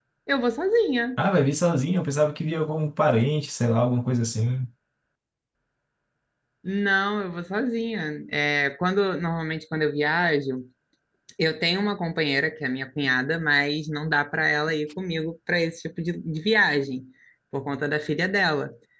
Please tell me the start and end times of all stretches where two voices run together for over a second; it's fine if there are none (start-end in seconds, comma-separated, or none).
none